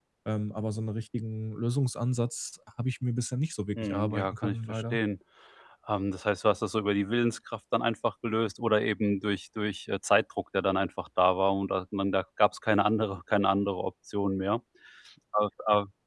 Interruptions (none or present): present